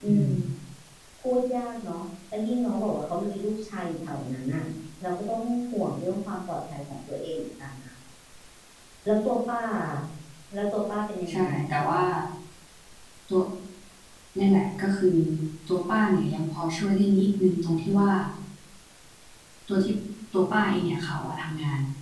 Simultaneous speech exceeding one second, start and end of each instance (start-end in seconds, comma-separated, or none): none